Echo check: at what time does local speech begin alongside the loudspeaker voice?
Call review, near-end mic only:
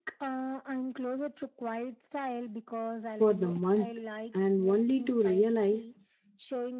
3.1 s

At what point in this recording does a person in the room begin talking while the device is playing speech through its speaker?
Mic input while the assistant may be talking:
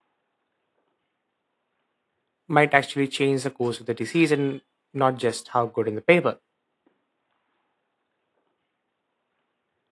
2.5 s

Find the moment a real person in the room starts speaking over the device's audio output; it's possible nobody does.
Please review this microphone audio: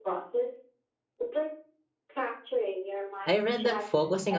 3.2 s

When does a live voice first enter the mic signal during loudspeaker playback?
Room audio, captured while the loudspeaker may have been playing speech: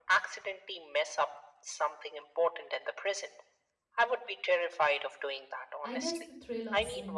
5.8 s

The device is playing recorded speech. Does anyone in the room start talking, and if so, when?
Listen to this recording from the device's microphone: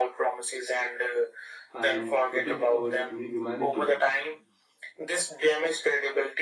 1.7 s

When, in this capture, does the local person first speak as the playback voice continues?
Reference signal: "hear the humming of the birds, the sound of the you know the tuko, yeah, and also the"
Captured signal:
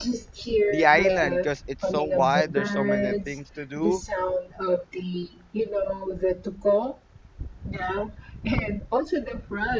0.7 s

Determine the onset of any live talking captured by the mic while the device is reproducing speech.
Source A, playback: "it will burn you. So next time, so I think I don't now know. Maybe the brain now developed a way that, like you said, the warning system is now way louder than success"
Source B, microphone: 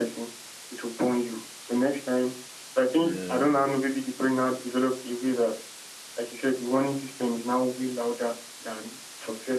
3.0 s

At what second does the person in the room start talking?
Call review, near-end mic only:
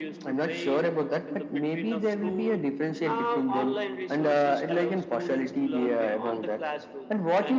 none

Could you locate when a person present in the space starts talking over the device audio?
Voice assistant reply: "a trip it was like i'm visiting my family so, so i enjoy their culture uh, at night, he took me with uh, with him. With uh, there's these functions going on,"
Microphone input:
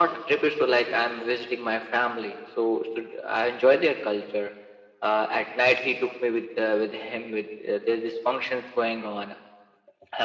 none

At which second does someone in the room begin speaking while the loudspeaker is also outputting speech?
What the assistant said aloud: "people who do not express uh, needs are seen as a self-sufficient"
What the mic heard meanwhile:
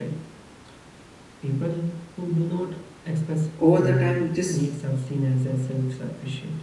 3.6 s

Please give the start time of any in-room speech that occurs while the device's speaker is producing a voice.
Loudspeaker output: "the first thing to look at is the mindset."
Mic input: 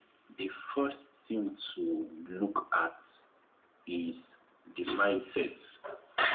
none

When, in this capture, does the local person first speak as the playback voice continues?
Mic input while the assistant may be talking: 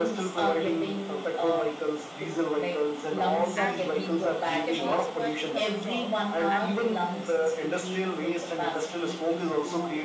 3.5 s

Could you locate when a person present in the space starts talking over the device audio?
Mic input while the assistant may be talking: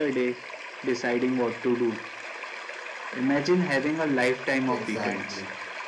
4.7 s

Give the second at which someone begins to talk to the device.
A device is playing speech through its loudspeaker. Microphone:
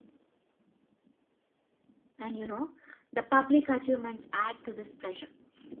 2.2 s

